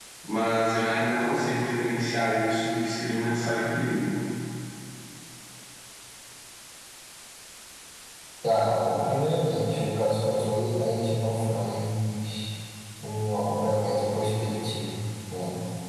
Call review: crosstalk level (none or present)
none